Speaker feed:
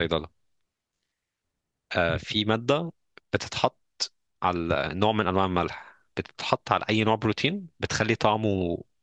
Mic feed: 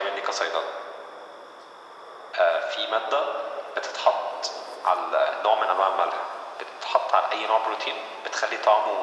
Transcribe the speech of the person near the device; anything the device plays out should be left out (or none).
none